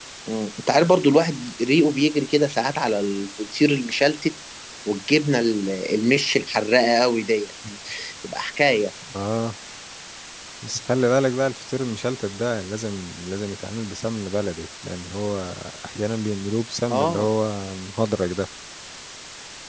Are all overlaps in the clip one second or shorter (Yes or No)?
Yes